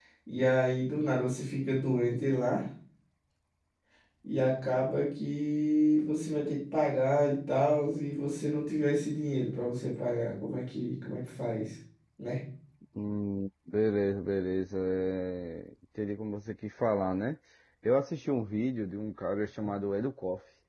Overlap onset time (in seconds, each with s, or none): none